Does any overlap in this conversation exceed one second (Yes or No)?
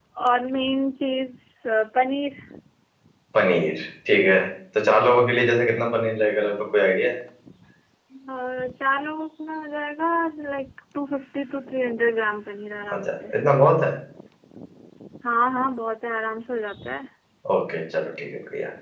No